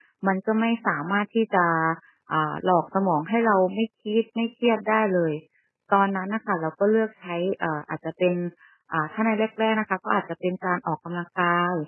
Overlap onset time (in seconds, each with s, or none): none